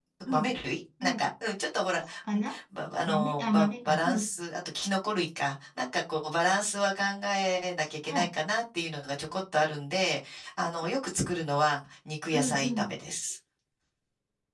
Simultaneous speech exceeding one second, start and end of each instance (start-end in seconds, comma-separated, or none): 3.1-4.3